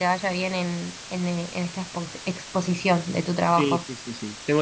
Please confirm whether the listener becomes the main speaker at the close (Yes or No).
Yes